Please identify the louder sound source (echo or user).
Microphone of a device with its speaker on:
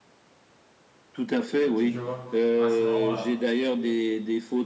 echo